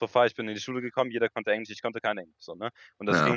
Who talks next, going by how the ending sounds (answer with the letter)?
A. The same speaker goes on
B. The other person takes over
B